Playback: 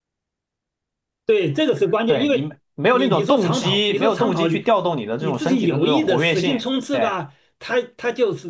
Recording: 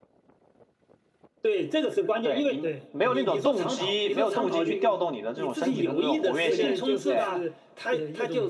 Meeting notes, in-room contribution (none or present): present